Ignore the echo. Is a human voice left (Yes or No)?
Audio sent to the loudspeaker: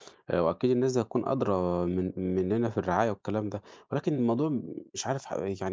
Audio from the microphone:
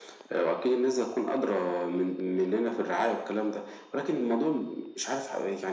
No